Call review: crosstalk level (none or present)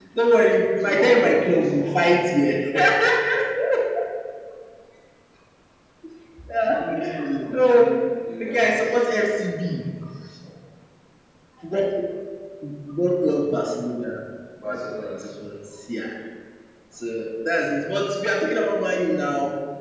present